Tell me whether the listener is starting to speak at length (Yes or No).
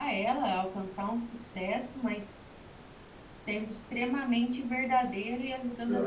Yes